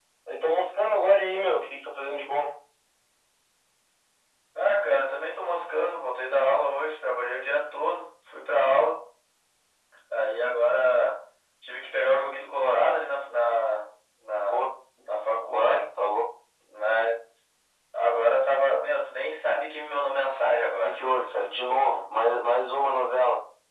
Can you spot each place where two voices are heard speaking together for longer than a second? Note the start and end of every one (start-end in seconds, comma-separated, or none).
none